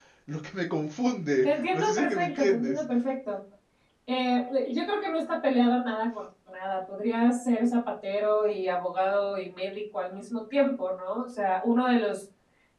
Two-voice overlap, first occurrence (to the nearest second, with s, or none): 1 s